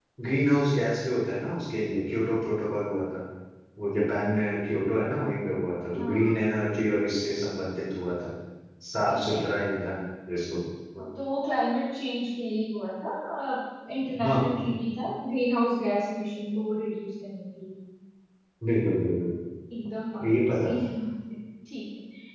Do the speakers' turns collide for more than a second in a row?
No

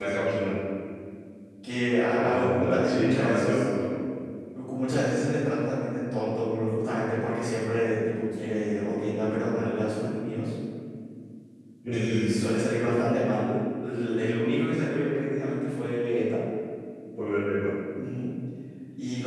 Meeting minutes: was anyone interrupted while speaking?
Yes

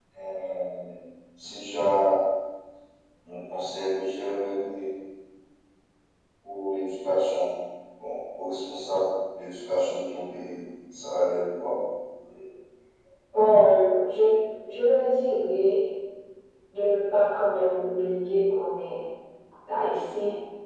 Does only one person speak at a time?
Yes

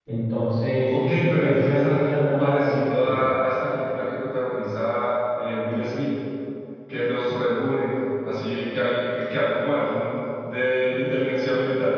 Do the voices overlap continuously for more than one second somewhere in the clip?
Yes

